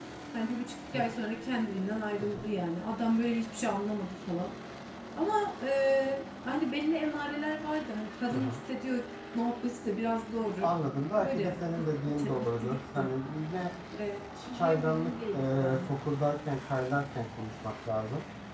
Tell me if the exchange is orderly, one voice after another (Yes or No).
No